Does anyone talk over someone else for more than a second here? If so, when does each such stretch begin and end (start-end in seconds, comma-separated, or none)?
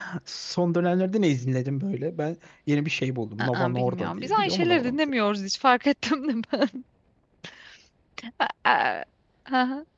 3.4-5.0